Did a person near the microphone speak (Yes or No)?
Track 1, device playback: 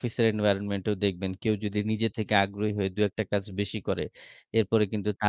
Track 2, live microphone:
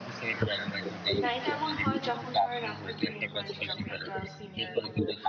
Yes